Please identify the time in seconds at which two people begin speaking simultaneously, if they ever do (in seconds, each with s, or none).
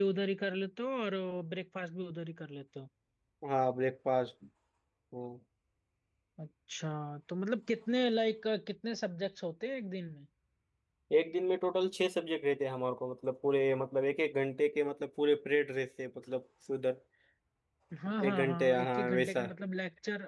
18.2 s